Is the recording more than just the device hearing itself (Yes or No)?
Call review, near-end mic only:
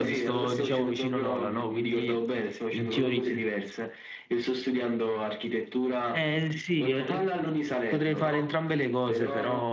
Yes